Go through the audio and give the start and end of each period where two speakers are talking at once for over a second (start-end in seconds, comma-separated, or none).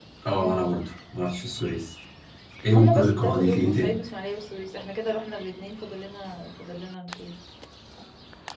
2.7-4.0